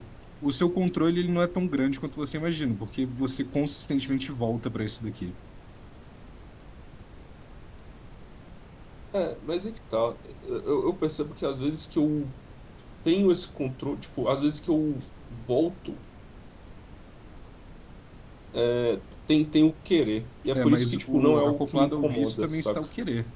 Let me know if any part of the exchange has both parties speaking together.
Yes, from 20.5 s

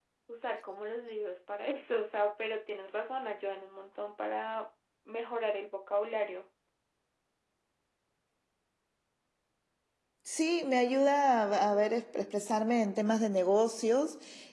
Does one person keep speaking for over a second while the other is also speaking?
No

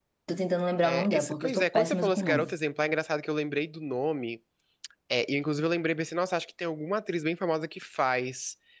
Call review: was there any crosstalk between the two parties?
Yes, from 0.8 s

